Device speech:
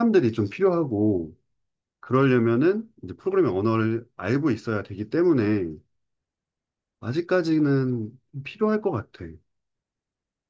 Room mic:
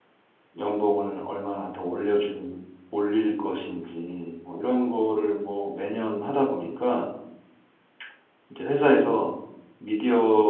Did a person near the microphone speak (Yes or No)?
Yes